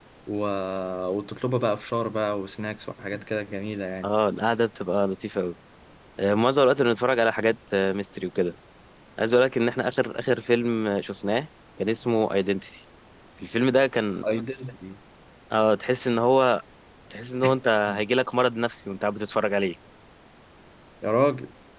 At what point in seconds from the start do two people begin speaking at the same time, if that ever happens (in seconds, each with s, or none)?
none